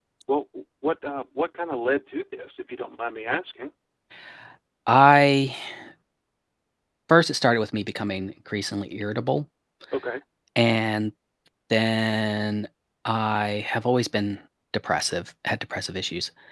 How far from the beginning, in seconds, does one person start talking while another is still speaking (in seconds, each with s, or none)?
none